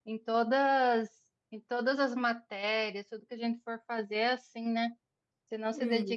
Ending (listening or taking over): listening